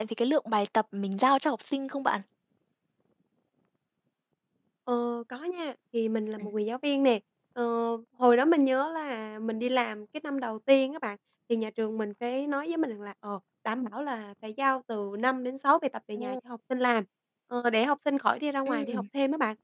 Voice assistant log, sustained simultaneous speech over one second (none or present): none